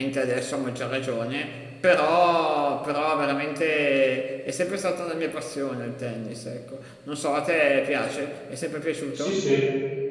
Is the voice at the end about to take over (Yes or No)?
Yes